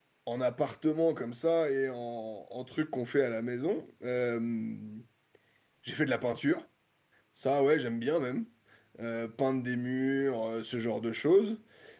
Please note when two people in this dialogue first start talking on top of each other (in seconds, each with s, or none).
none